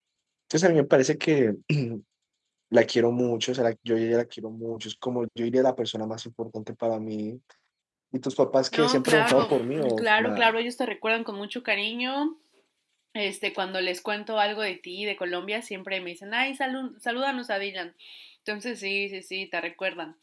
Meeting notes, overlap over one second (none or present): present